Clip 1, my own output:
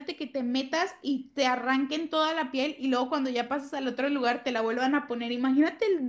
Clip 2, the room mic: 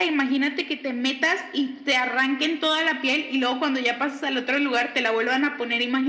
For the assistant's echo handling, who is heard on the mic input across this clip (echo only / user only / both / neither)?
echo only